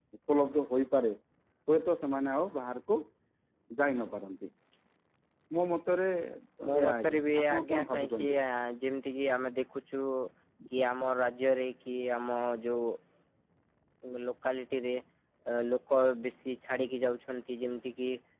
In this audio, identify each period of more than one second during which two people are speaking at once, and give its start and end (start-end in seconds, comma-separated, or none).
6.8-8.3